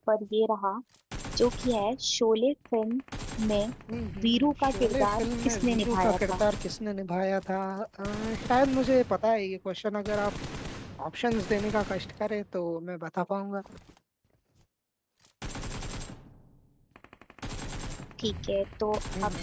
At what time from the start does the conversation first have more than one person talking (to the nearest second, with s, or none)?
4 s